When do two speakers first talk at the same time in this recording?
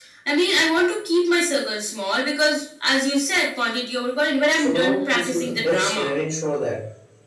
4.6 s

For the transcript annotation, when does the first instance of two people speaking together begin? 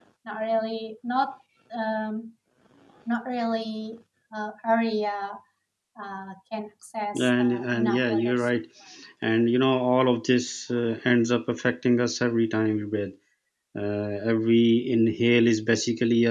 7.1 s

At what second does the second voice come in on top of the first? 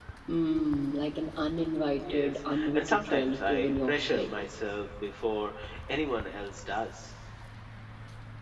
2.0 s

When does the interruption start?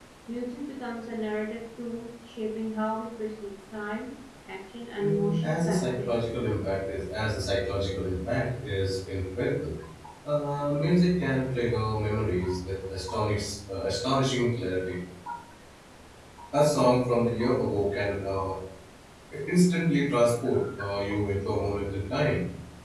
5.0 s

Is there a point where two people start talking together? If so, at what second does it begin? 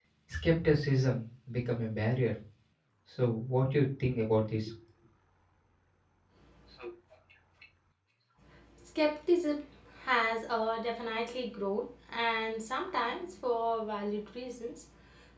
none

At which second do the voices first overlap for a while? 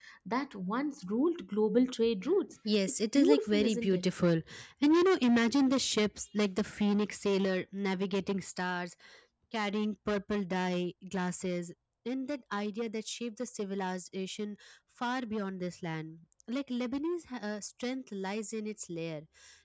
2.6 s

